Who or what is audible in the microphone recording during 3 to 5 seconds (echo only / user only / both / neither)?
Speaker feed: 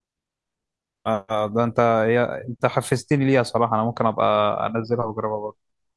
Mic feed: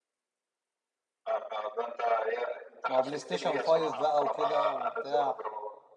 both